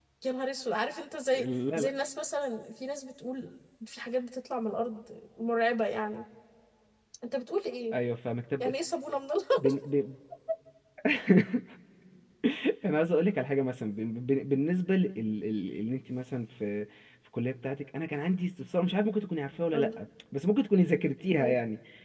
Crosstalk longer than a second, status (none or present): none